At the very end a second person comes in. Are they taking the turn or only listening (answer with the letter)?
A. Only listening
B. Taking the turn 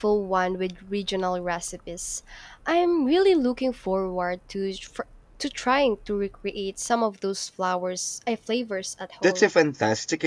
B